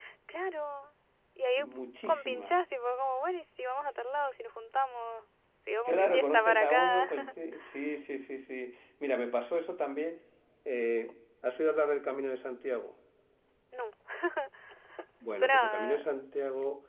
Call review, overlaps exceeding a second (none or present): present